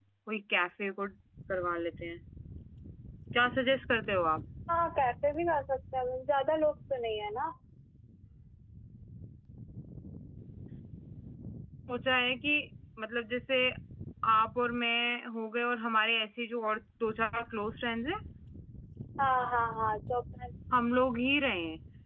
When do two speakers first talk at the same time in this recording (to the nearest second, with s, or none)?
none